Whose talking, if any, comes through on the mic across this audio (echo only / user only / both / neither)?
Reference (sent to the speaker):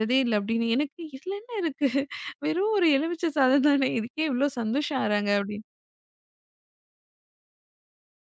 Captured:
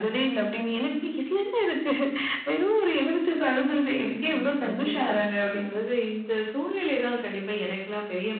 both